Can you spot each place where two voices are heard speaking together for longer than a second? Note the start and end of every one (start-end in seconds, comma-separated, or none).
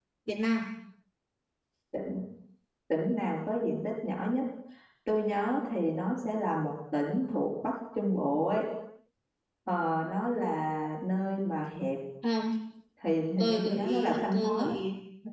13.4-14.7